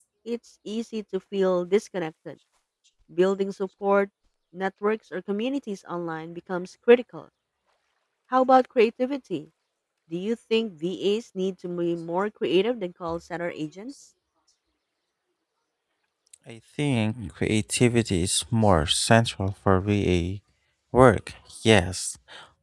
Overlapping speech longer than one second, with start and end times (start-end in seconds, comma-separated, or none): none